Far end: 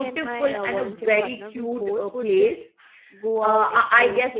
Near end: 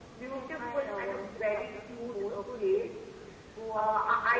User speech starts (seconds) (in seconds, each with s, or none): none